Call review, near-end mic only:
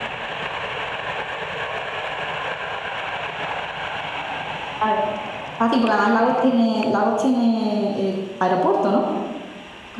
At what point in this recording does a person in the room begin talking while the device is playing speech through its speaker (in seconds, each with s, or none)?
4.8 s